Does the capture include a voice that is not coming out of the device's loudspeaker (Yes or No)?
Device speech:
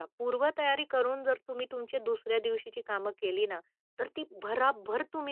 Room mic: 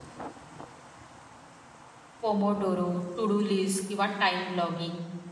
Yes